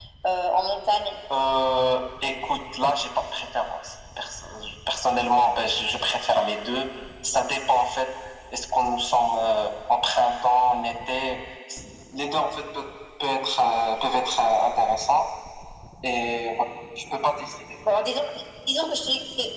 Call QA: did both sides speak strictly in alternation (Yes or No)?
Yes